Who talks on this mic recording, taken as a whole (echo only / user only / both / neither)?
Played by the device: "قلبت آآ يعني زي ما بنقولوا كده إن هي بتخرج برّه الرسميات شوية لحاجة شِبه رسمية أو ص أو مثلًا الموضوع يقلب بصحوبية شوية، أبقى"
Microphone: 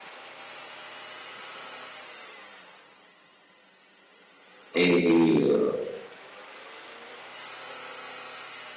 user only